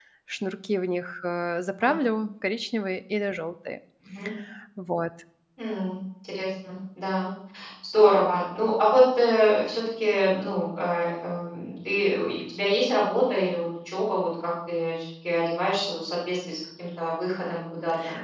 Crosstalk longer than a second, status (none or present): none